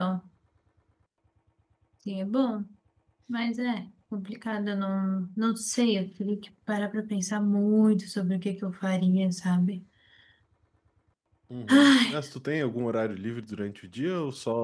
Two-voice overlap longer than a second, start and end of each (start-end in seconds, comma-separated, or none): none